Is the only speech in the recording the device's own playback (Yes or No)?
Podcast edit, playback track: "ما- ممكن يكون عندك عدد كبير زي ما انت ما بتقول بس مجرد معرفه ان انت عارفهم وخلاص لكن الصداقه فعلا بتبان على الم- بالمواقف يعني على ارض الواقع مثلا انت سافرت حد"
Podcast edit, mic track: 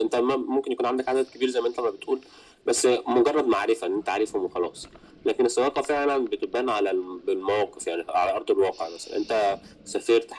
Yes